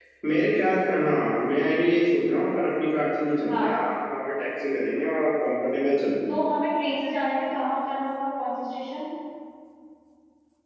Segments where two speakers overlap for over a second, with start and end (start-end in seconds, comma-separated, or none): none